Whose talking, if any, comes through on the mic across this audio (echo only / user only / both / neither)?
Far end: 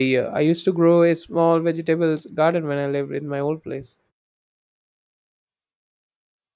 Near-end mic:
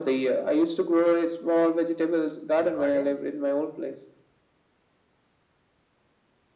both